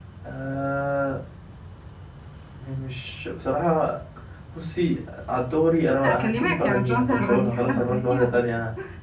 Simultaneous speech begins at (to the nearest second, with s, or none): 6 s